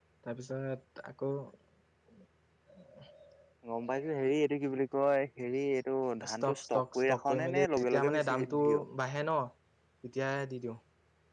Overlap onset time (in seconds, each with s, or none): 6.2 s